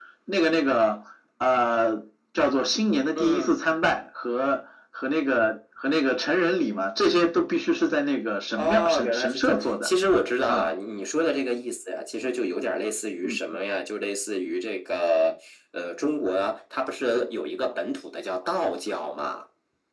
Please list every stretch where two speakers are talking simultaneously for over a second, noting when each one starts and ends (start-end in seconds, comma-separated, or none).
8.6-9.9